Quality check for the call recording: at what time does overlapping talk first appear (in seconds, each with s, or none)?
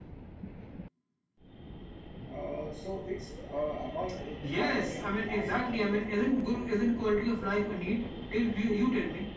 4.4 s